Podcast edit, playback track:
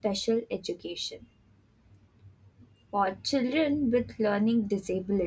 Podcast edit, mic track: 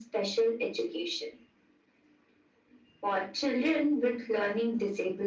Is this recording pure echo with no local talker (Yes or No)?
Yes